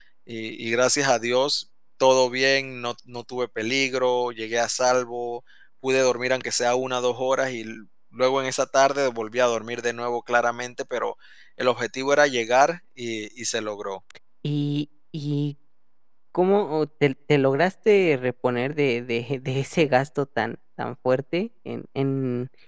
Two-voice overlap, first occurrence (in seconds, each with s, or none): none